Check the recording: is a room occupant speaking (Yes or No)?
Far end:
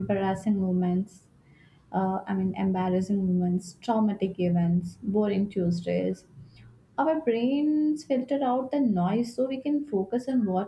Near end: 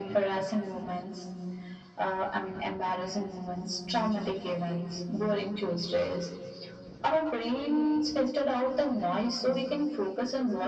No